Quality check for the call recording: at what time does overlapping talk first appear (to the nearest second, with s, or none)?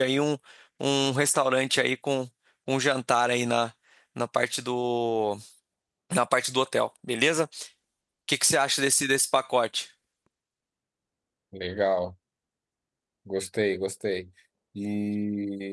none